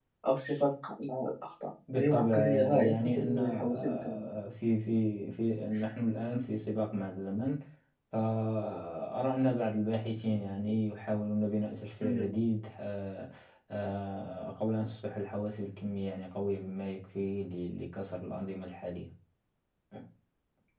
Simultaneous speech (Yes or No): Yes